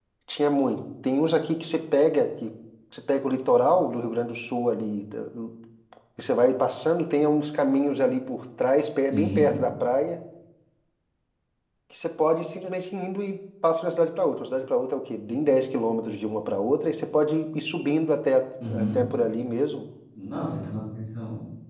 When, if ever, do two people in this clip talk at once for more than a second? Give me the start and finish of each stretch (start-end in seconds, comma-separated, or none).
none